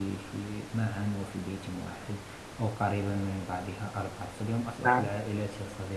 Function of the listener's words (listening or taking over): listening